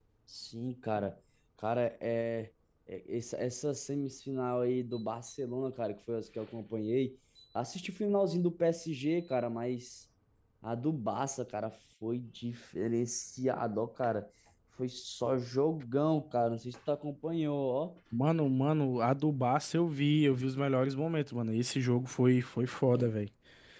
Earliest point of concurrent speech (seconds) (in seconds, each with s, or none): none